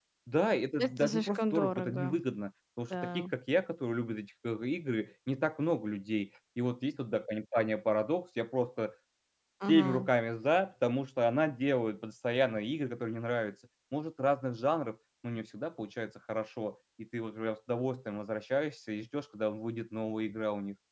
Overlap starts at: 0.8 s

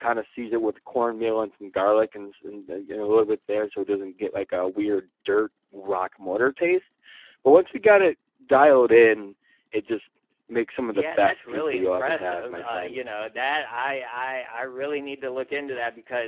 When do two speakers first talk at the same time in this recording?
10.9 s

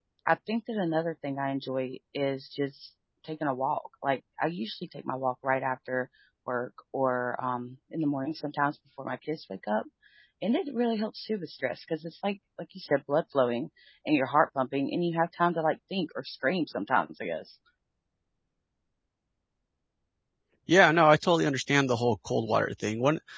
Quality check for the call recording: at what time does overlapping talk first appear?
none

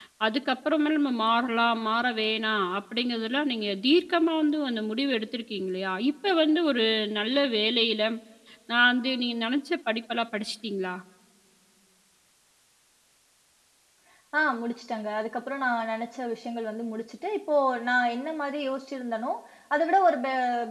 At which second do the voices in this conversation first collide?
none

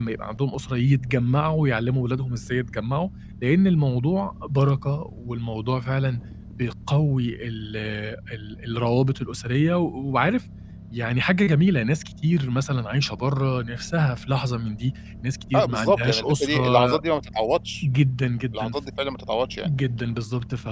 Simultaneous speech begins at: 15.5 s

